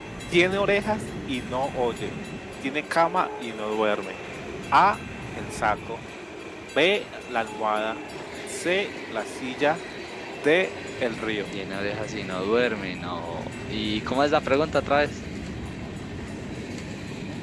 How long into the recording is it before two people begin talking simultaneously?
none

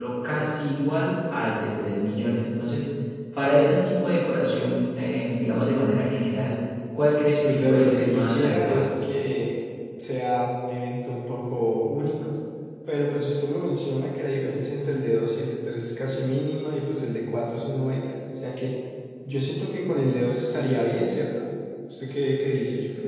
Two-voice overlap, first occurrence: 7.5 s

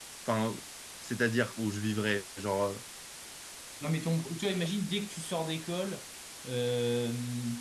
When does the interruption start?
none

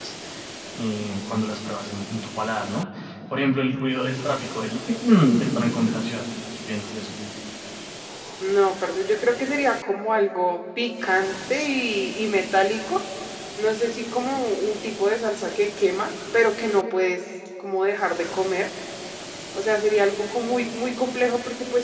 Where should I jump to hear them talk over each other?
none

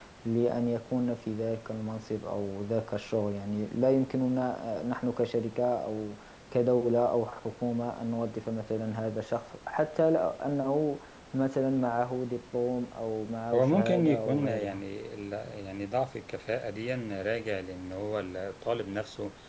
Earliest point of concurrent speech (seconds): 13.5 s

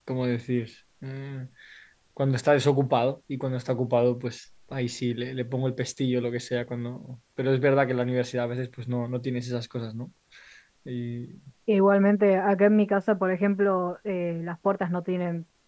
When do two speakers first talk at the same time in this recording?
none

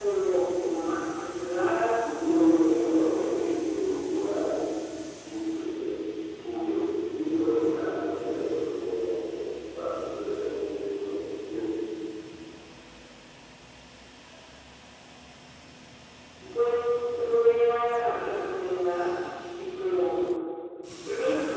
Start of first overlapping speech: 2.0 s

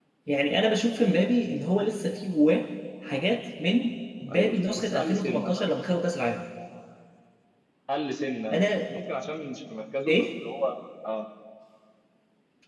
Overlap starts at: 4.3 s

